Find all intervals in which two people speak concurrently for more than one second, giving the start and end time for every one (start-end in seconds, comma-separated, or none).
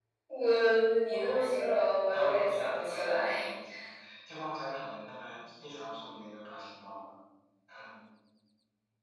2.1-3.4